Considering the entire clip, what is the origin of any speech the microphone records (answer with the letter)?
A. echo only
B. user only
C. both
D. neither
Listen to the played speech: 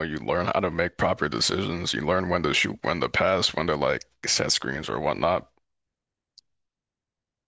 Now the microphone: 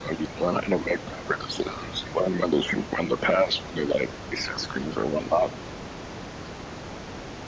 A